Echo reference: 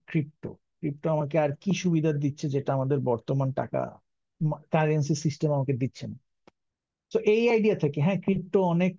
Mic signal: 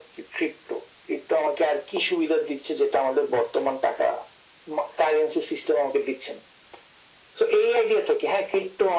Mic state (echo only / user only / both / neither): echo only